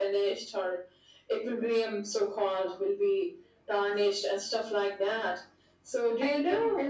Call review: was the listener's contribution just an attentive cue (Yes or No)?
No